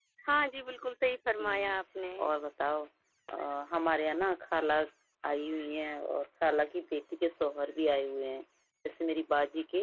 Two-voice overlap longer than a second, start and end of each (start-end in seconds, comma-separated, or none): none